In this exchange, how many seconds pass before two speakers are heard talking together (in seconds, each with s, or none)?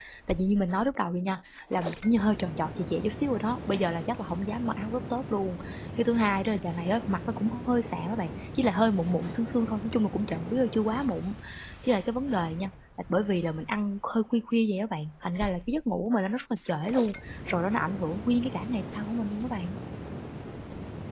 none